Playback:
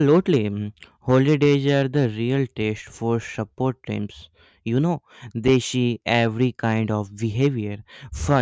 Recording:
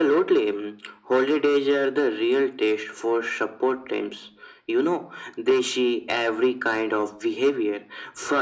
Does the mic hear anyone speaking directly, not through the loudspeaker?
No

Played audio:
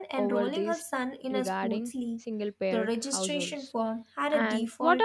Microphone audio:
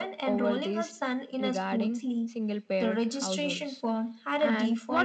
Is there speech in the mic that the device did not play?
No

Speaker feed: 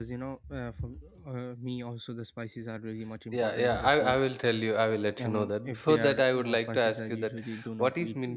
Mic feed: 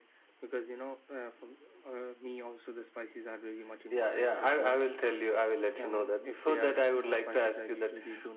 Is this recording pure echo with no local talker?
Yes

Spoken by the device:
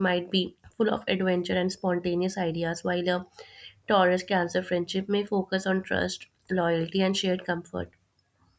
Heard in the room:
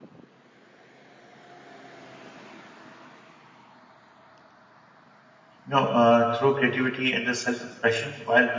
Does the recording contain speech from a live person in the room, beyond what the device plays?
Yes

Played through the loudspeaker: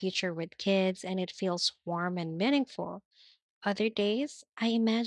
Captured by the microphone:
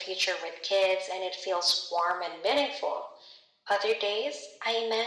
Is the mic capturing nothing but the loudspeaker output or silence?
Yes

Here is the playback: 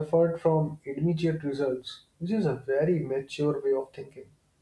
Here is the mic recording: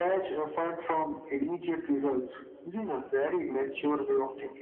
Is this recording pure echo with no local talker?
Yes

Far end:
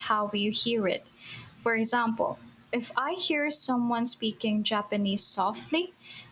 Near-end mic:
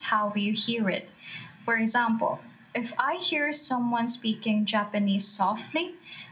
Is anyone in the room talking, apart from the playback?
No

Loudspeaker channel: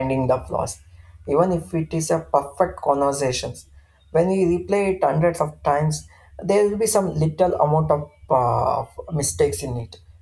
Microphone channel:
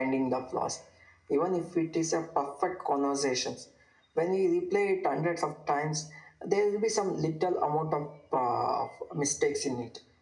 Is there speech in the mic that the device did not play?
No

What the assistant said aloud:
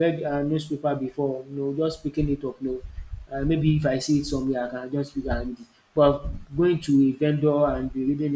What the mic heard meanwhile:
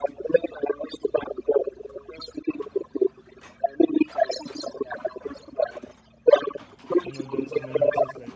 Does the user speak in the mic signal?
Yes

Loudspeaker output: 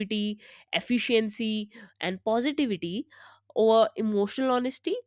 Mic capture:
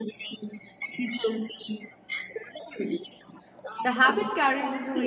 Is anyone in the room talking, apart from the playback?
Yes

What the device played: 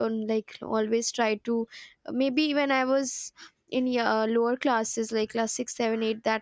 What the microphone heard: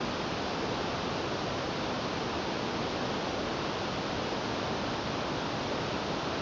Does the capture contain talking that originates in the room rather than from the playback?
No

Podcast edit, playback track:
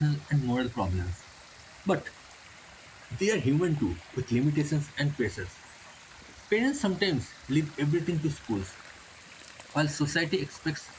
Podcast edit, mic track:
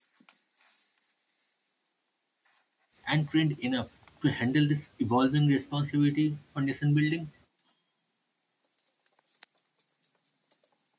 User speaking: Yes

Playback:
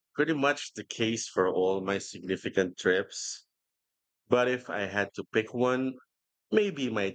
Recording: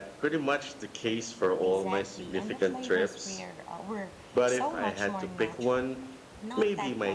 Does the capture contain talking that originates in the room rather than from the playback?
Yes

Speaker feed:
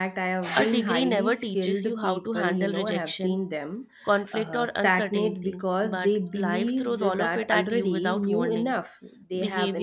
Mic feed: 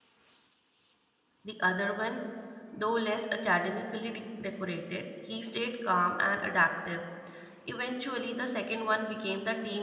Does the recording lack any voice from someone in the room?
No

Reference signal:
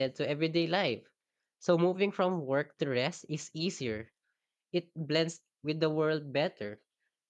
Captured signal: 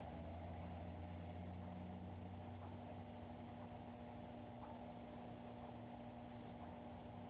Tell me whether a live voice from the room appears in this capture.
No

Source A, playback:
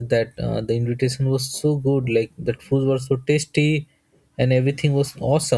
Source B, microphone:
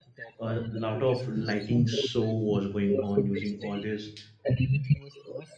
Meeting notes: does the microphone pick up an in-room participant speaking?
Yes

